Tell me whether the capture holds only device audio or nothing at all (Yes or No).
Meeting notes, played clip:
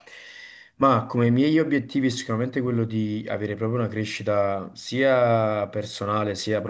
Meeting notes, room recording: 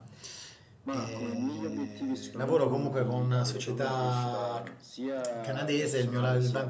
No